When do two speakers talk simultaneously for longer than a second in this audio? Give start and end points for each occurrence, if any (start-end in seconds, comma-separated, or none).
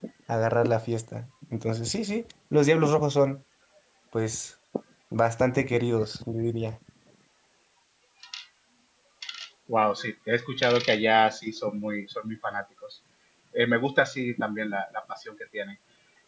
none